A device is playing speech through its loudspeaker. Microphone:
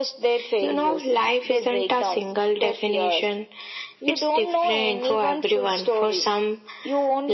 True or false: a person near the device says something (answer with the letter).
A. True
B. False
B